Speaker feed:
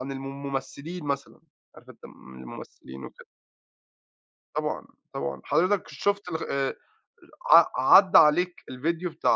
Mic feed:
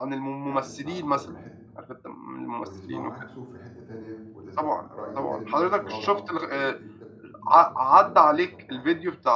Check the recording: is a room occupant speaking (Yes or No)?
Yes